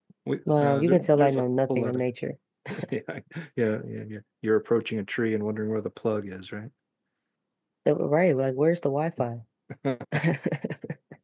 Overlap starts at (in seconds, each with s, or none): 0.6 s